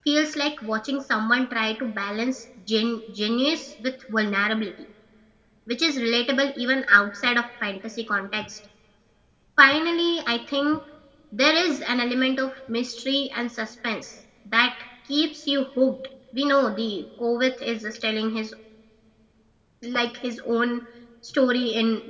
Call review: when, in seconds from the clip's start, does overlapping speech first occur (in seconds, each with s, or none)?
none